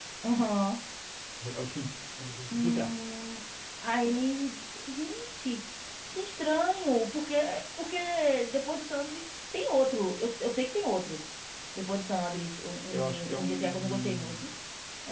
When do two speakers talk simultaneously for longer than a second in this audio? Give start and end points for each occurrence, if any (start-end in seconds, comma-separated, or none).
12.9-14.4